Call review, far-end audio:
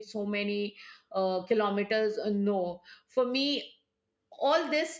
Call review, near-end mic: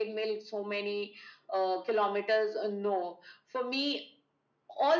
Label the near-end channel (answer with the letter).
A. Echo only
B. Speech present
A